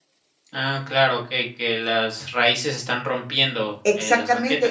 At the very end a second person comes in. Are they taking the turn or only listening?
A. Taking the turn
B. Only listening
A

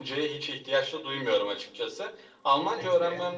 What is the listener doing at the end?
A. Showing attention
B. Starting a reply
A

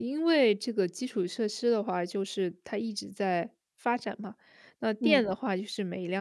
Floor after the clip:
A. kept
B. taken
A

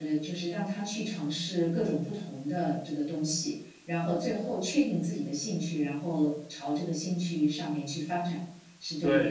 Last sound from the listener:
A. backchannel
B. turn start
B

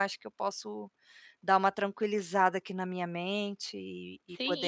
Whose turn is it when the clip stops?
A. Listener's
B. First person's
A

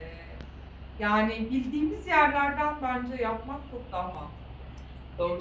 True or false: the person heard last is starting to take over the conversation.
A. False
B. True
B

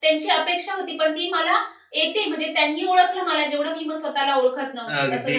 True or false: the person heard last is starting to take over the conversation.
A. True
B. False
A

